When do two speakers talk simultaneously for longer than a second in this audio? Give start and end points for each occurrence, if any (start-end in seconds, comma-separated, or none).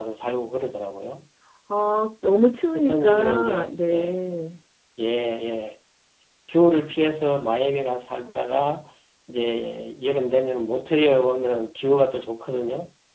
2.7-4.2